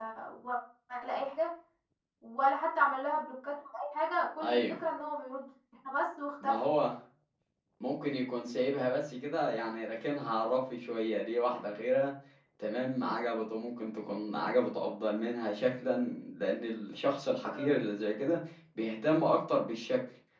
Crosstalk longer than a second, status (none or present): none